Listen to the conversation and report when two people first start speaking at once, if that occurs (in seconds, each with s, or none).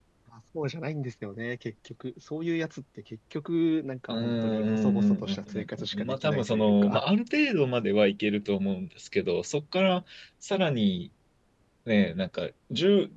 4.1 s